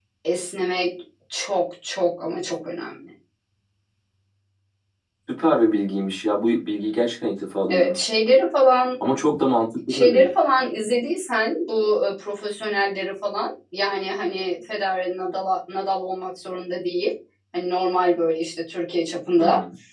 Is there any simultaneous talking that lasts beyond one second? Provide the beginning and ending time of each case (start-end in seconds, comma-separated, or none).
none